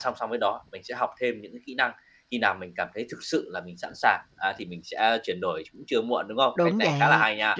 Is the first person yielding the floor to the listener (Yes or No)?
Yes